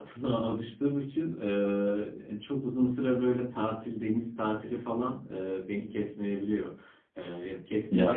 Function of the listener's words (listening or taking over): listening